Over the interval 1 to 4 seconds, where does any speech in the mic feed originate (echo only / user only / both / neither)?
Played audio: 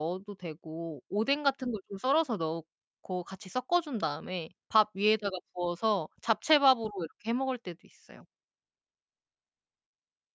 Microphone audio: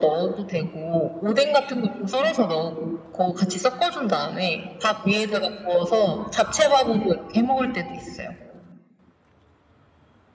echo only